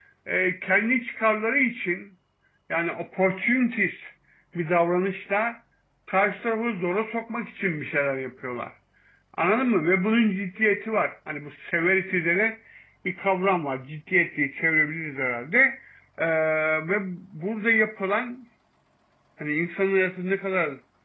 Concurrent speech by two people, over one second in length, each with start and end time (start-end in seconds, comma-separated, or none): none